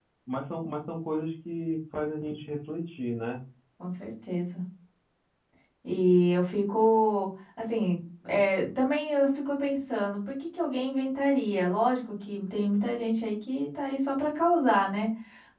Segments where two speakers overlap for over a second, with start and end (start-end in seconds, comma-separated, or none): none